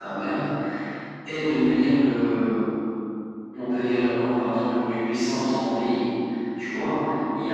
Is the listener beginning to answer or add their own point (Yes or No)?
No